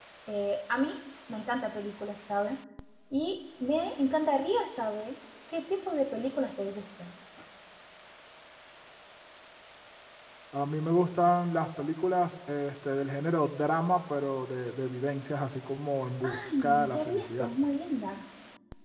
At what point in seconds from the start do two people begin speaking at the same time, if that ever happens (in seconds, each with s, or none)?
16.2 s